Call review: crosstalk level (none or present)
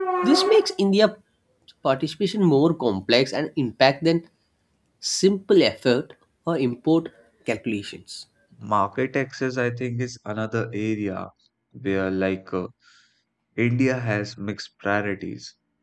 none